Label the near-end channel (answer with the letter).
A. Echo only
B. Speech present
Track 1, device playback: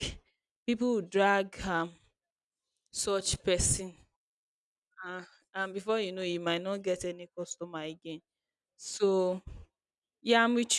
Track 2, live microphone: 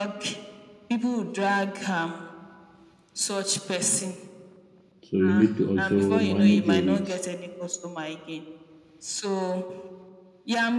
B